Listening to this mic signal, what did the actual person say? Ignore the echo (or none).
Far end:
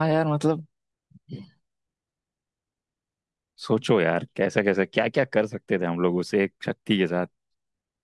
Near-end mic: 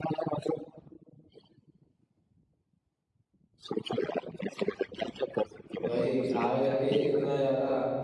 भाई आगे जाके ये इतना ज्यादा